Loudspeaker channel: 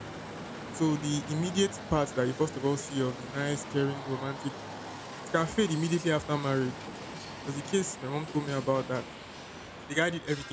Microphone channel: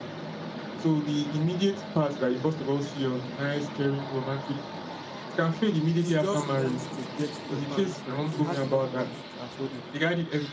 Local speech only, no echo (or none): He just wants to get in your pants, and he has enough money to afford it.